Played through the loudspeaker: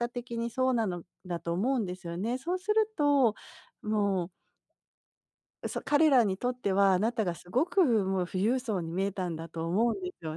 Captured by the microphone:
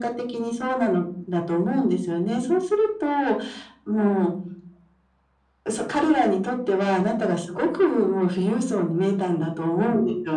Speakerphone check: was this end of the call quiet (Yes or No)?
Yes